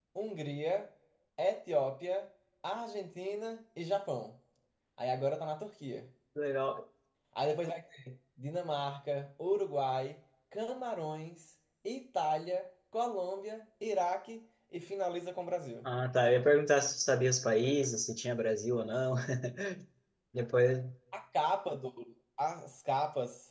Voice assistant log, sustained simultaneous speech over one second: none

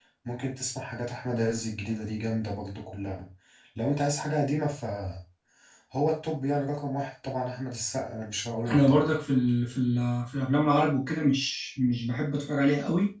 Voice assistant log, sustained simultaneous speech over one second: none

